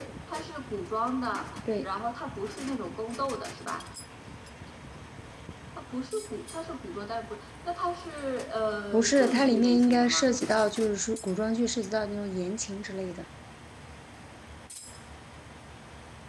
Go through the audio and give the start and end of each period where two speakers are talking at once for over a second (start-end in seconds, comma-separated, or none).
8.9-10.3